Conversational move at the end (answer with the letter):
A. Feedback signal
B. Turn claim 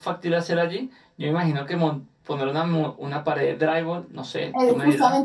B